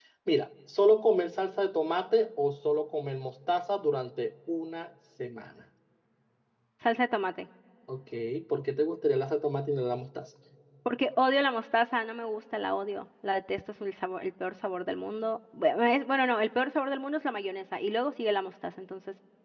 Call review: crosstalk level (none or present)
none